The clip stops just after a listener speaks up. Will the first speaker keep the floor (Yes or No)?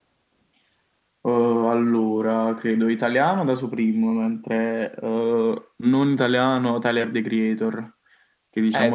No